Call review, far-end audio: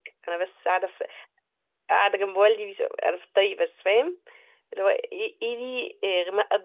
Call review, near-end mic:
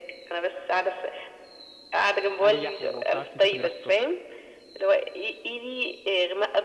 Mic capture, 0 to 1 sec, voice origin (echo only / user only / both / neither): echo only